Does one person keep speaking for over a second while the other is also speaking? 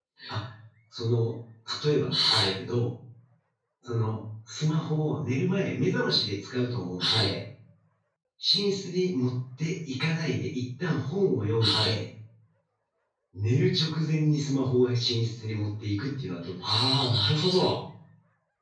No

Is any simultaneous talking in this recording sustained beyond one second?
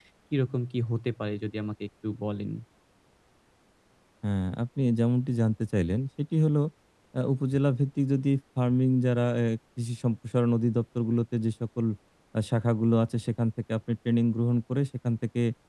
No

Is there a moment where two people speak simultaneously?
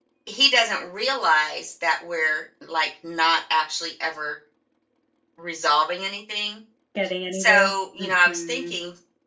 Yes, from 7.3 s

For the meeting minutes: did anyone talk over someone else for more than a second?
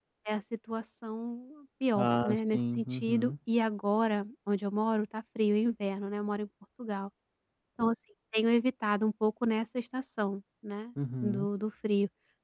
Yes, from 1.9 s

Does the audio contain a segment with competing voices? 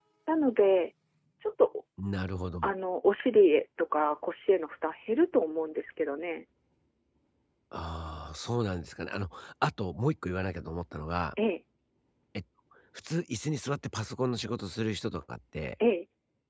No

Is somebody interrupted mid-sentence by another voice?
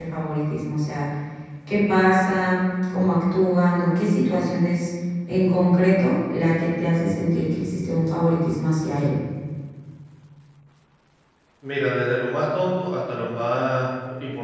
No

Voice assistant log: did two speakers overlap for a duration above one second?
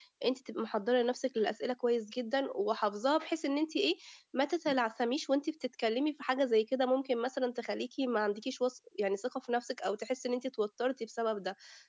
No

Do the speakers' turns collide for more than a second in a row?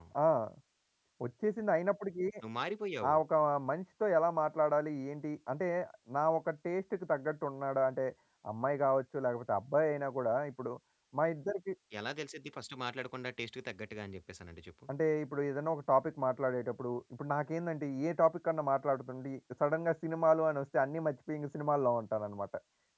No

